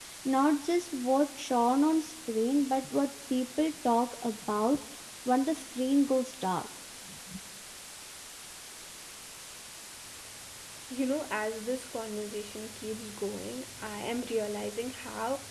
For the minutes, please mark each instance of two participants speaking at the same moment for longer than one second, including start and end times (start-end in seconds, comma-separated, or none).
none